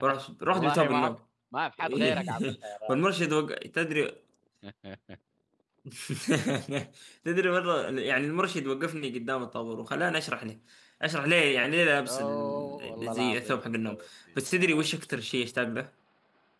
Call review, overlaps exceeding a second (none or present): present